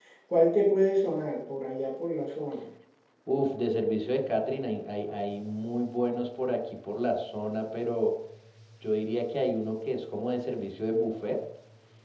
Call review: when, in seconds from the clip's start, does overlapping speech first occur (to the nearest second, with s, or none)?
none